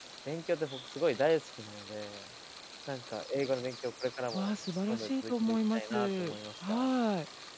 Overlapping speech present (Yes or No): Yes